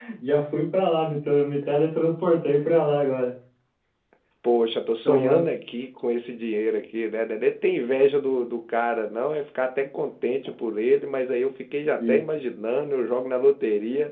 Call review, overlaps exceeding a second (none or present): none